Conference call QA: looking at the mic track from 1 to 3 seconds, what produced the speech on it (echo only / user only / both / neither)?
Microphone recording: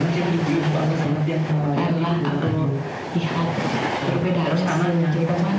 echo only